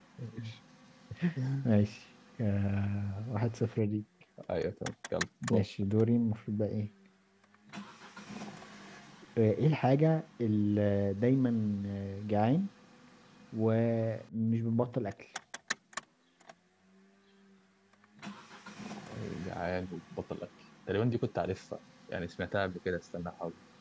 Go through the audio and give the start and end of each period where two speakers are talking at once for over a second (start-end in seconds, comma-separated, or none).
none